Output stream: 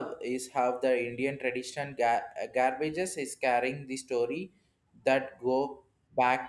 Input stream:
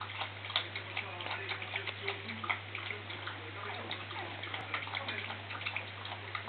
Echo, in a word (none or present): none